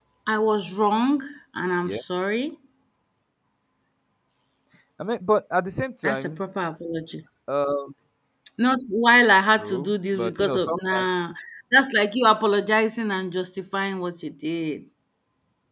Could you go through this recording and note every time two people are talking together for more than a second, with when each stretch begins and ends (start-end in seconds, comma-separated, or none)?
9.6-11.0